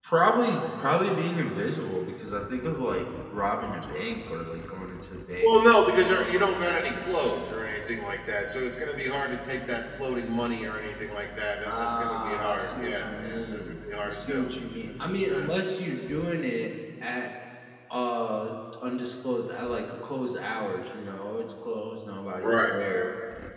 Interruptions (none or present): present